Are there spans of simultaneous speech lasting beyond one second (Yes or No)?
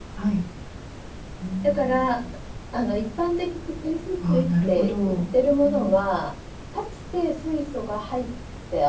Yes